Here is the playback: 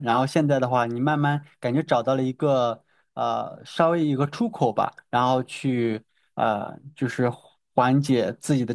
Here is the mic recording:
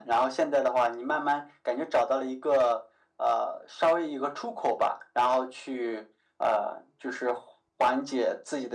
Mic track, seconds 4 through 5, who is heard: echo only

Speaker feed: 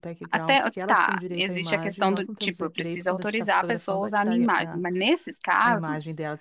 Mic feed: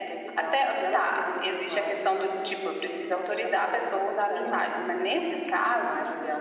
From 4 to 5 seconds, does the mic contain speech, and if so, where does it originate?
echo only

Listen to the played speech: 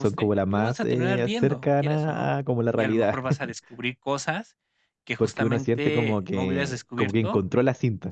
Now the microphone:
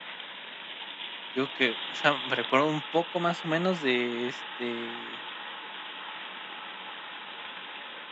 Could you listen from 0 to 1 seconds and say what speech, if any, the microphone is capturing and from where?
neither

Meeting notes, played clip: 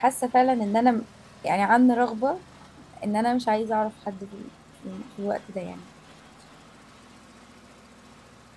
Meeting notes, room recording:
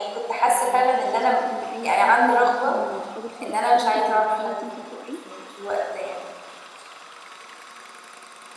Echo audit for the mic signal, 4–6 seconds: both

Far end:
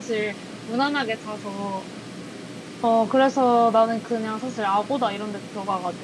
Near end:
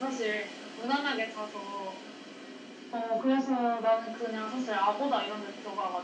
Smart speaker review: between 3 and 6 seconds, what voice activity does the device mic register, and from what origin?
echo only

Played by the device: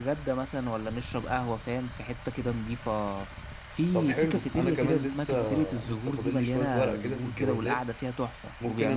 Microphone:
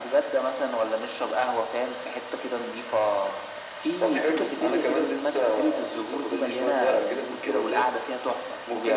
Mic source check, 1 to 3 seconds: echo only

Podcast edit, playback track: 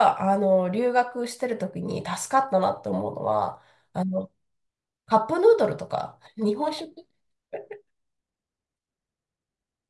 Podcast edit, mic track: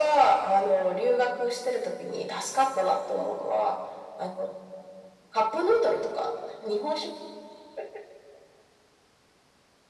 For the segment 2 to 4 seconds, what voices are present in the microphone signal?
echo only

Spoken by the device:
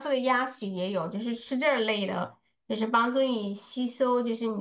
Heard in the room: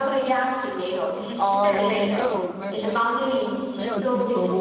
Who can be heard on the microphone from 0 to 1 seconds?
echo only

